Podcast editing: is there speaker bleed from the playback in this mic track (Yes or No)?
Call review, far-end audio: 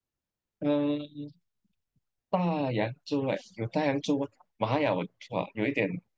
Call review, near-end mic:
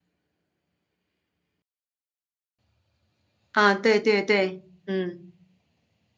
No